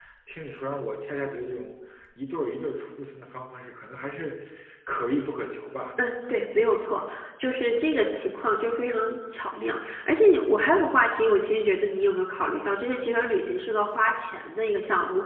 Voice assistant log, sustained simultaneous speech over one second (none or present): none